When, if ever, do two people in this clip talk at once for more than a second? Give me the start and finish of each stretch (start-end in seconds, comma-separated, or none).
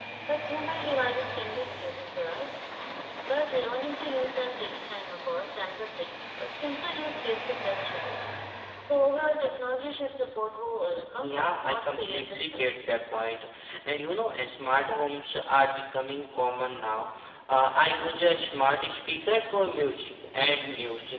11.2-12.7